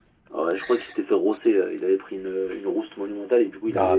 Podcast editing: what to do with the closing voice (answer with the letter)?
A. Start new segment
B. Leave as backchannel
A